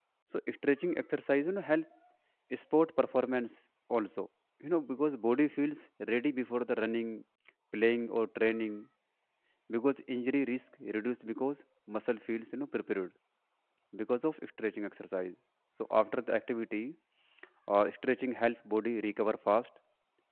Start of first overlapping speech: none

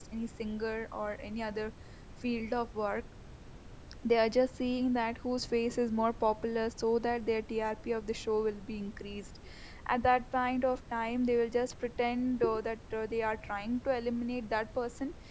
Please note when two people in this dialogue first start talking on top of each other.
none

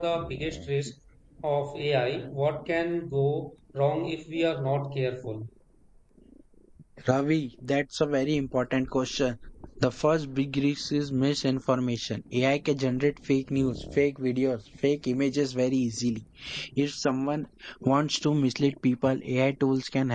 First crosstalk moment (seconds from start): none

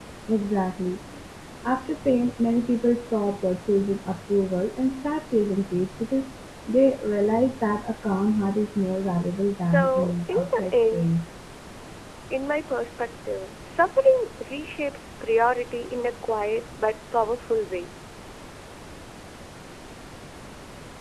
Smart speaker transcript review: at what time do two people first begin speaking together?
9.7 s

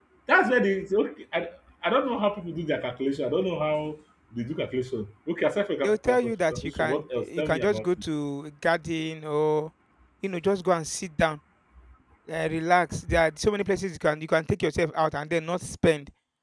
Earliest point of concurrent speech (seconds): 5.8 s

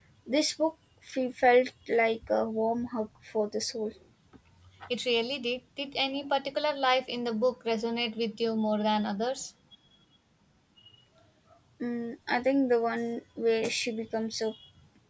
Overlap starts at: none

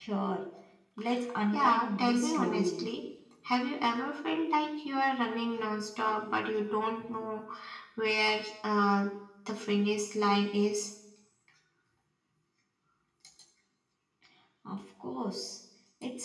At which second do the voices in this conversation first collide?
1.5 s

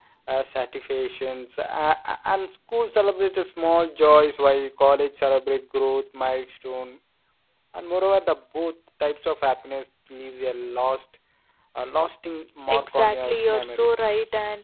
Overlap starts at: 12.7 s

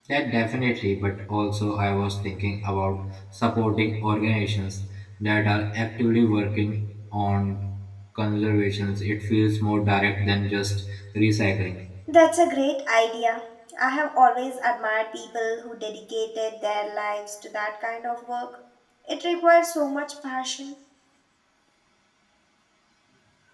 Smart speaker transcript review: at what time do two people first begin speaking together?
none

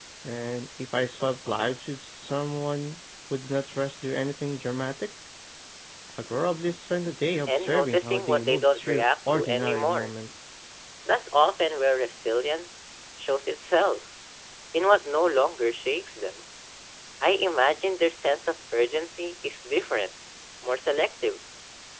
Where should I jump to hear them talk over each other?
7.5 s

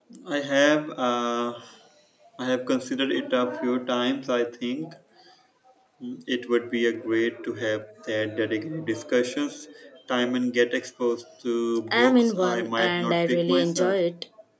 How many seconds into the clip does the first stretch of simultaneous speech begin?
11.9 s

